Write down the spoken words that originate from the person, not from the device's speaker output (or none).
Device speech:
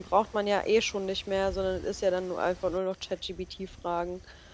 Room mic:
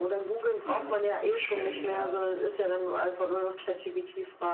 Mhm. Das stimmt, ja.